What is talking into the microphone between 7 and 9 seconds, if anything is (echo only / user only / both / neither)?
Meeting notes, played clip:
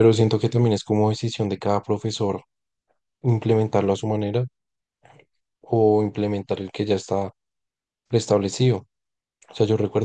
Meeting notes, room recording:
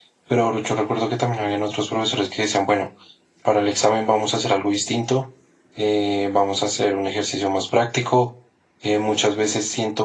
user only